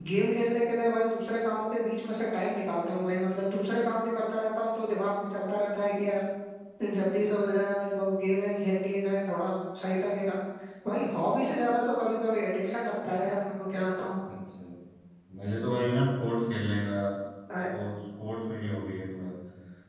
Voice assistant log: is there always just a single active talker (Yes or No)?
Yes